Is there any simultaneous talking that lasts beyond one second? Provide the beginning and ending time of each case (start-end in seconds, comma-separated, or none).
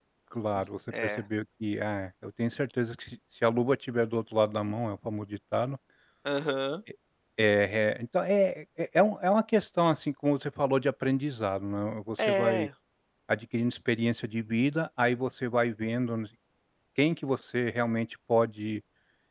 none